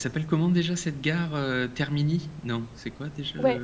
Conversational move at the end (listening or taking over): taking over